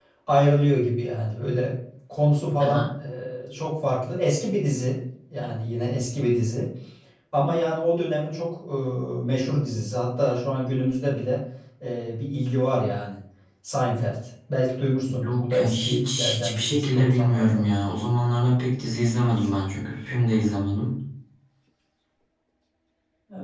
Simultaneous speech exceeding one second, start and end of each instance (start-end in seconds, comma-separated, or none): 15.2-17.6